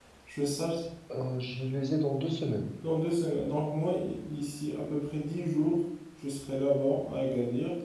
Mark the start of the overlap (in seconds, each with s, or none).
none